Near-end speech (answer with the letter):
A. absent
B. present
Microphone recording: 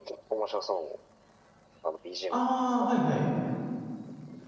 B